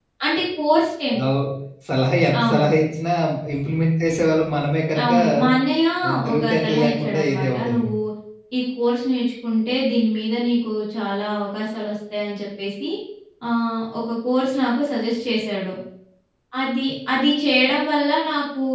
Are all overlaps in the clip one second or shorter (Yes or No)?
No